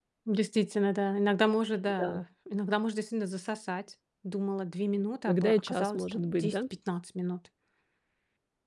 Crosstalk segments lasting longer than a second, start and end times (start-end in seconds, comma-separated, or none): 5.3-6.5